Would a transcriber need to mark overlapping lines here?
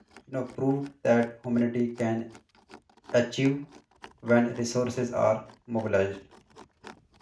No

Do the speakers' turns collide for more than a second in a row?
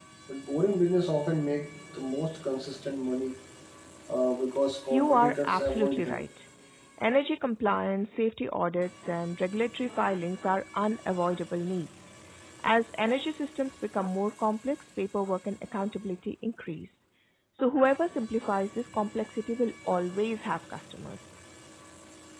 Yes, from 4.9 s

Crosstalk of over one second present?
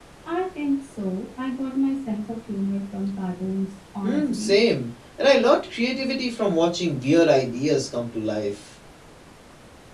No

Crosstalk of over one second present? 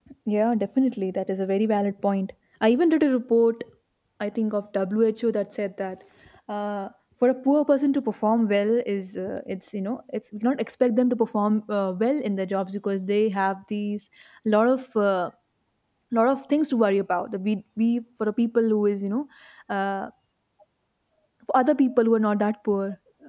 No

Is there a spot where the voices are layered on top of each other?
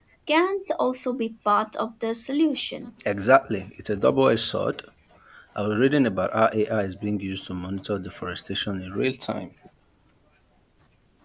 No

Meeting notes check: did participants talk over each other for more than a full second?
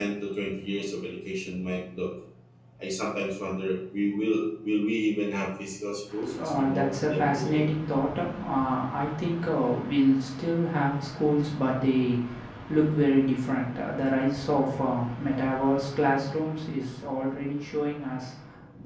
Yes, from 6.4 s

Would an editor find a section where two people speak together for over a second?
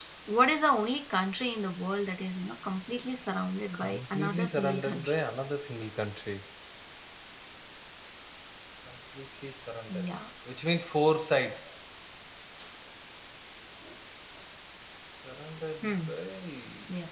Yes, from 3.7 s

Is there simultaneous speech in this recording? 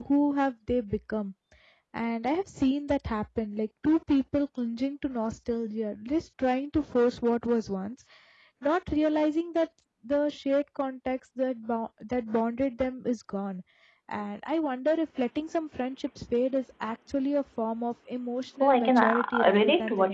Yes, from 18.6 s

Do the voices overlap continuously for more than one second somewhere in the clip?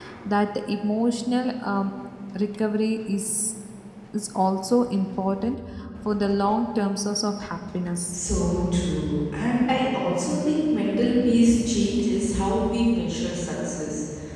No

